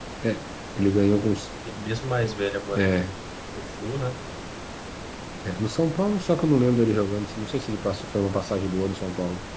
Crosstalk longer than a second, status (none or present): none